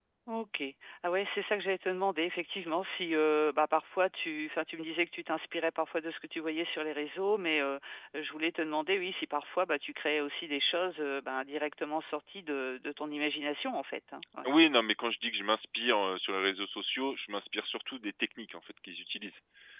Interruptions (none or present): none